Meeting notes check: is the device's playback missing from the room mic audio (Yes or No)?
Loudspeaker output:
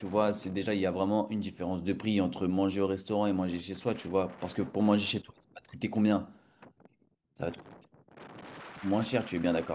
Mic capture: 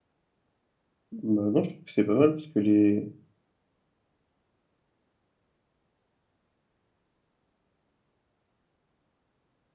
Yes